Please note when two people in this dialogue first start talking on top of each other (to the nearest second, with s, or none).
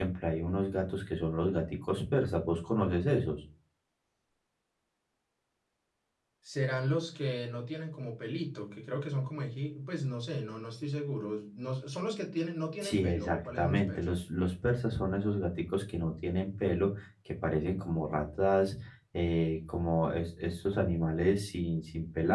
13 s